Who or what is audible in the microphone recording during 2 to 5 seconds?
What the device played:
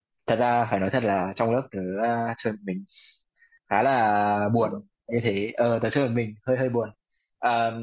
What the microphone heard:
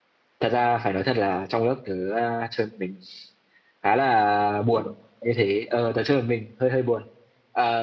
echo only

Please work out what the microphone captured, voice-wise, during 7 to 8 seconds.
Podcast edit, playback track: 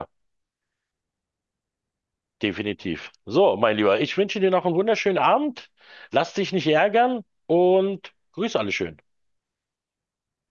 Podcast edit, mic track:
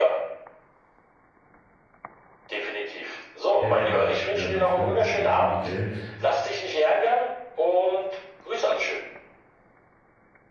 echo only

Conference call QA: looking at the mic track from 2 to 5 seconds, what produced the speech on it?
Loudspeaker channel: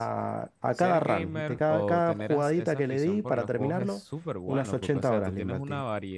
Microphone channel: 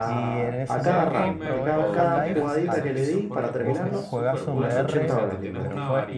both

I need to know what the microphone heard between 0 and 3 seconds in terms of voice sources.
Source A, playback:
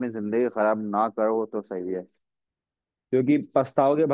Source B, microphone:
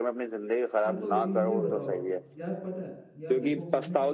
both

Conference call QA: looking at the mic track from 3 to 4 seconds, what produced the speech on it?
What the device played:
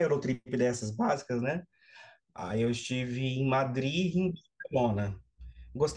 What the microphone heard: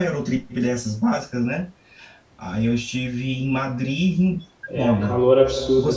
echo only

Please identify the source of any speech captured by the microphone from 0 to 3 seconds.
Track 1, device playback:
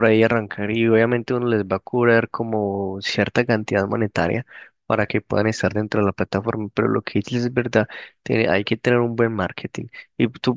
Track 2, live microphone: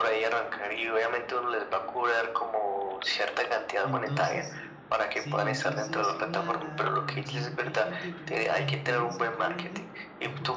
echo only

